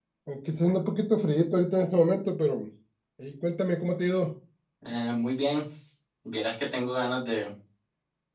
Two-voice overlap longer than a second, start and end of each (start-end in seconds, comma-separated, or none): none